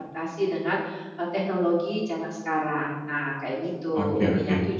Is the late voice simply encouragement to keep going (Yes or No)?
No